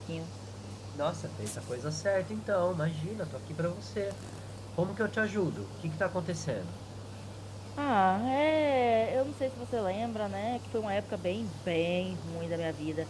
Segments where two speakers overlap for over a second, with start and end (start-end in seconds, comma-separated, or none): none